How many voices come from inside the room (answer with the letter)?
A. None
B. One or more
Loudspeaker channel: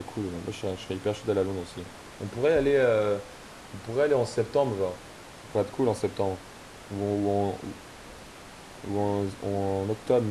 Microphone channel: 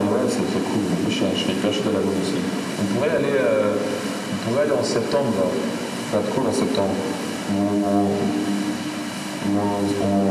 A